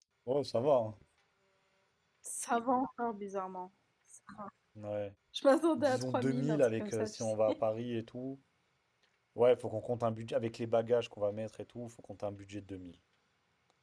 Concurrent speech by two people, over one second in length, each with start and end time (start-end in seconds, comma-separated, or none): 5.8-7.6